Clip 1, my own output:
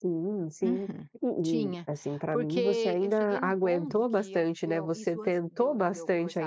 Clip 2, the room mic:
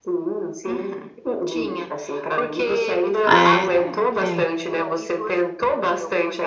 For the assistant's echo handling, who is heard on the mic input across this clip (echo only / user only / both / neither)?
both